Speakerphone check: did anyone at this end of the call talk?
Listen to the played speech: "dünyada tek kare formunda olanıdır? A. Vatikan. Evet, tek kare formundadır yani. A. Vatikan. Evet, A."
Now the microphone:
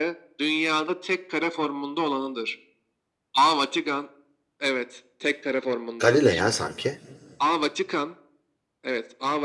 Yes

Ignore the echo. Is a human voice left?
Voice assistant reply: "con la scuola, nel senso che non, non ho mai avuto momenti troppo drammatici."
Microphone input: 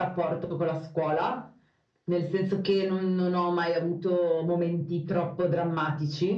No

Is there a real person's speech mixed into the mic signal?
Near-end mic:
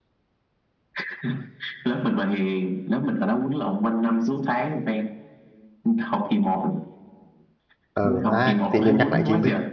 Yes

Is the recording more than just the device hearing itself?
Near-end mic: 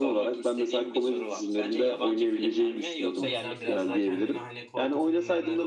Yes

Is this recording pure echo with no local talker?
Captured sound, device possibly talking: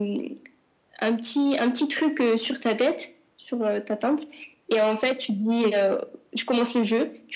Yes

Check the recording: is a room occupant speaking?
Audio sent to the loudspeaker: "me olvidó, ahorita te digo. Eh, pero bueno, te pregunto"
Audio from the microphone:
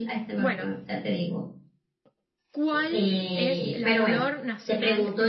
Yes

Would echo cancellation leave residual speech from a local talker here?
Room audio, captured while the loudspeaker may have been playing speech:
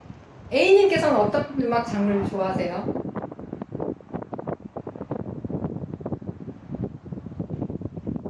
Yes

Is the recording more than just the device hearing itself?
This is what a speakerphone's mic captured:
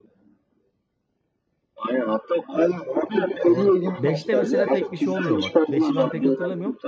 Yes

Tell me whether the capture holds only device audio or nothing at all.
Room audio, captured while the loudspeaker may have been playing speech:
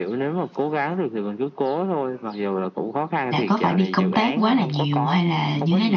No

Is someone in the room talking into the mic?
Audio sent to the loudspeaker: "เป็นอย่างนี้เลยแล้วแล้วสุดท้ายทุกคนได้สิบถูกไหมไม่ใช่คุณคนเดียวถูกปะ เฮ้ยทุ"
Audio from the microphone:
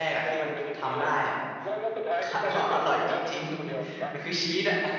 Yes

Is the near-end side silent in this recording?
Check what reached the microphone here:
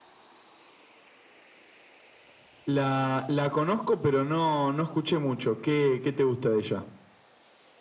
Yes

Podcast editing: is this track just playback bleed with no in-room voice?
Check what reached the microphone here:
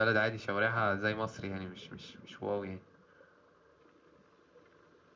No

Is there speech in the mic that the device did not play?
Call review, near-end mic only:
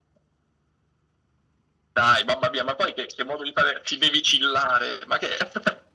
No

